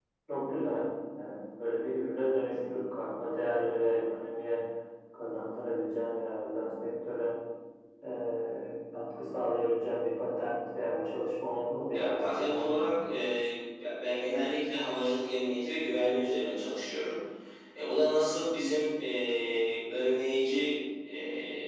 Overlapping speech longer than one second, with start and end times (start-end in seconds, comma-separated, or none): 11.9-13.1